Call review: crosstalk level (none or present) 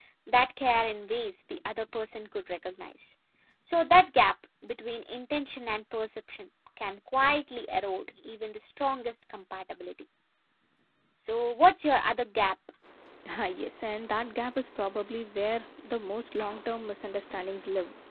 none